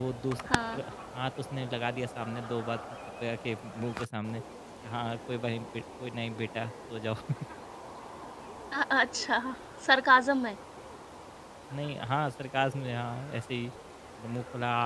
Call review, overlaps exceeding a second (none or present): none